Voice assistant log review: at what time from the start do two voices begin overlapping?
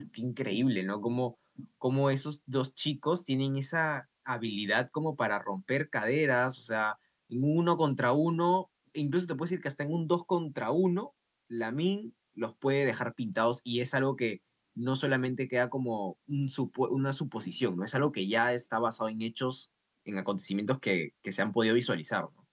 none

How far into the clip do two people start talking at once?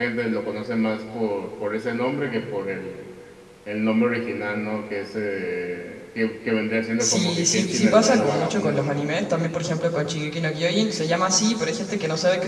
7.0 s

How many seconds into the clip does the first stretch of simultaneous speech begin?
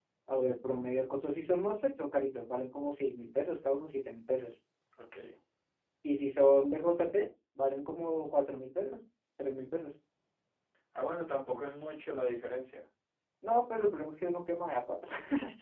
none

